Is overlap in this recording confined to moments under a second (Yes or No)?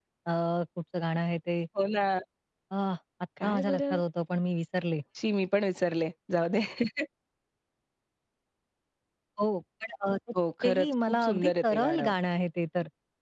No